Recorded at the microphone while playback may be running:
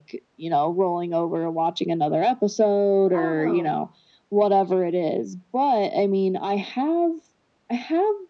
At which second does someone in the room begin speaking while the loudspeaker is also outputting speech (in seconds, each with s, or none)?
3.1 s